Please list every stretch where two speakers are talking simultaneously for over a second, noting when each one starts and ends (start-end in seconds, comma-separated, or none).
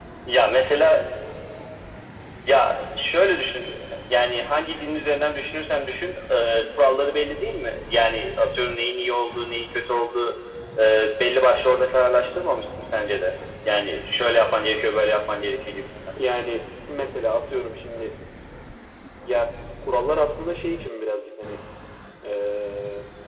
none